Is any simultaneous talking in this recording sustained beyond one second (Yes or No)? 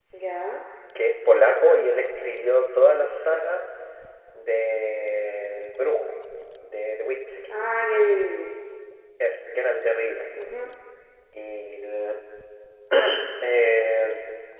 No